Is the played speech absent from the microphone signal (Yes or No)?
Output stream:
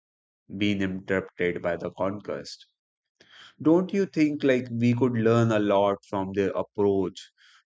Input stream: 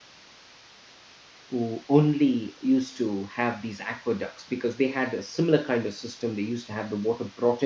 Yes